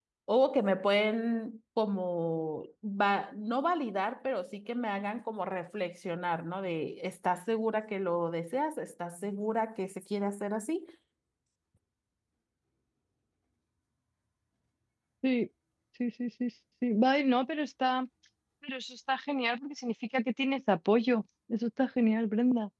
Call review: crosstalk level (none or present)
none